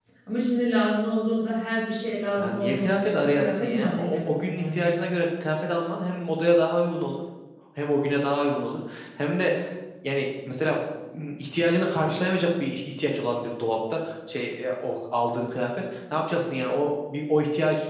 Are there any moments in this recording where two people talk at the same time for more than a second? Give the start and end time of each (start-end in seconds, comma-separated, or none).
2.4-4.9